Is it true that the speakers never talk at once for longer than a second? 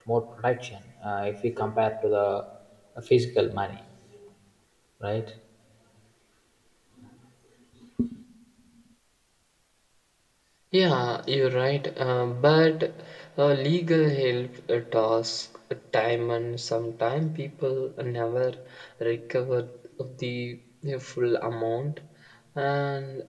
Yes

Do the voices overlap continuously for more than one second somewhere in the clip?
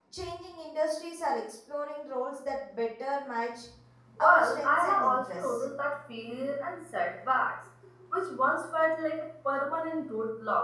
Yes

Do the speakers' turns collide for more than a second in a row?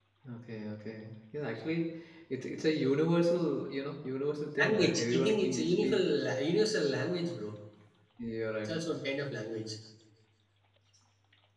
Yes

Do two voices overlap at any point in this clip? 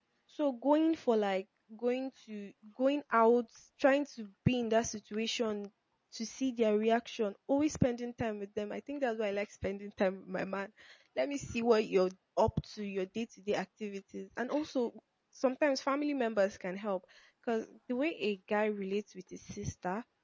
No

